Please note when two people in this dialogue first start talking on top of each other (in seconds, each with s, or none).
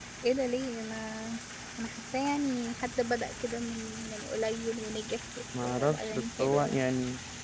5.5 s